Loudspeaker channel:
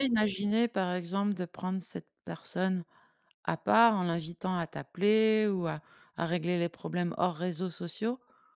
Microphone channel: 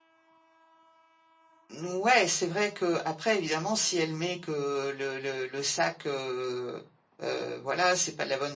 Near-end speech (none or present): present